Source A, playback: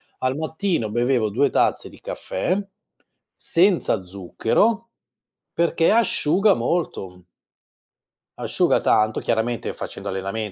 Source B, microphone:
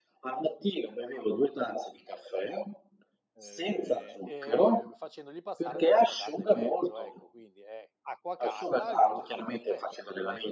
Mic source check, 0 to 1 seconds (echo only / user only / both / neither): echo only